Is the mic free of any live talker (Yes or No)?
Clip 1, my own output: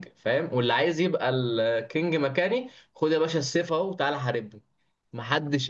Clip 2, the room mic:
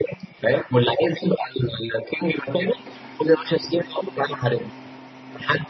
Yes